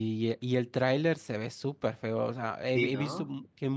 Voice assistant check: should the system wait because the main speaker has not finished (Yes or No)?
Yes